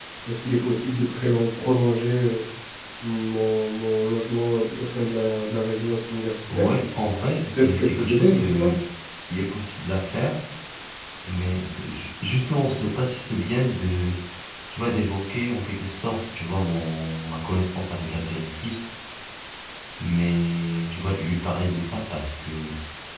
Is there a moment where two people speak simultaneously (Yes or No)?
Yes